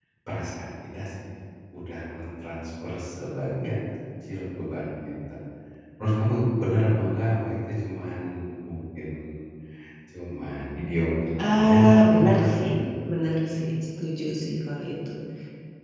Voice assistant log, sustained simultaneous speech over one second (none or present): present